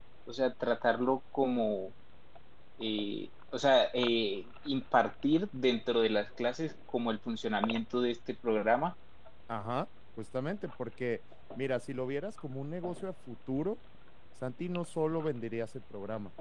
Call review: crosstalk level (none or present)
none